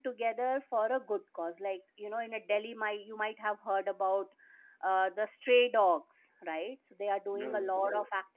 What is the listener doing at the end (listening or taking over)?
listening